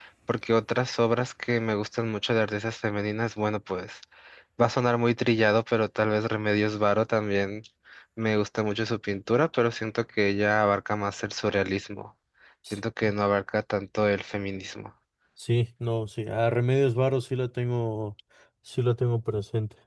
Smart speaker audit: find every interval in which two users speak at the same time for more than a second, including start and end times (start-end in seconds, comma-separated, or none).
none